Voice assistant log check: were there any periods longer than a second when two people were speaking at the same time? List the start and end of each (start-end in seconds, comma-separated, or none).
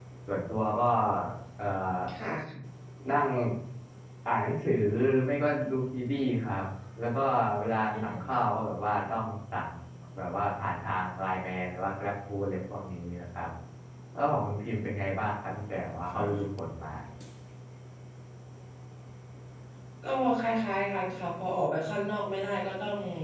none